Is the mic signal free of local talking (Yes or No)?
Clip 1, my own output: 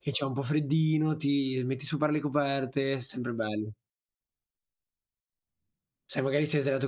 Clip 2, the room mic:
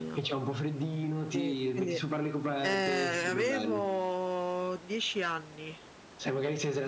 No